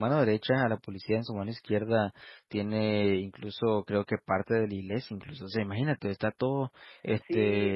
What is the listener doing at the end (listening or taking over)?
taking over